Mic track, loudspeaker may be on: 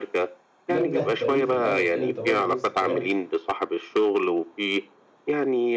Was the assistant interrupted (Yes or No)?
Yes